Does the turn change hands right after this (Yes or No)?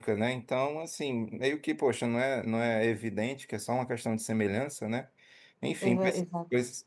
No